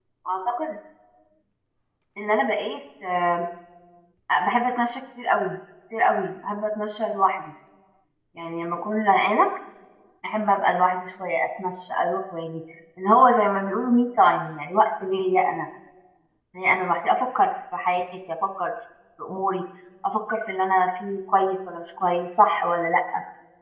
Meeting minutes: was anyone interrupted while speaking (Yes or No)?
No